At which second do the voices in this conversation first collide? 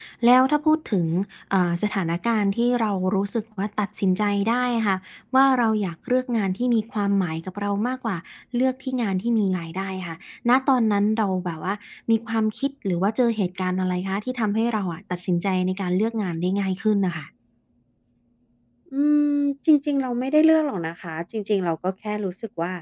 none

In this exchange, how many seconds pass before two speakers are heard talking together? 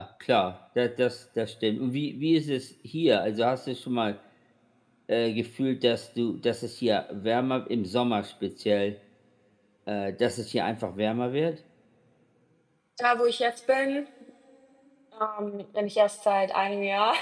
none

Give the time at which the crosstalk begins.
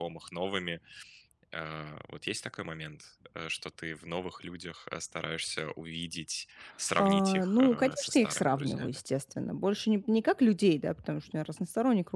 7.0 s

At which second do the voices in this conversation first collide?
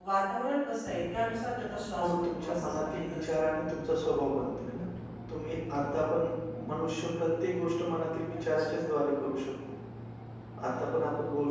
2.0 s

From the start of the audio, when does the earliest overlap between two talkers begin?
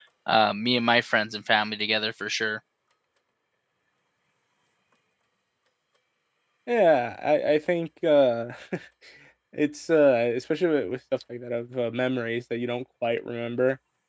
none

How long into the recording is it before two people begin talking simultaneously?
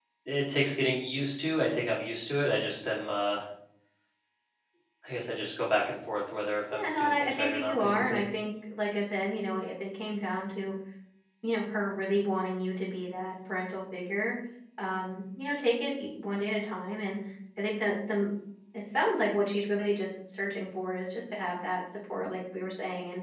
6.7 s

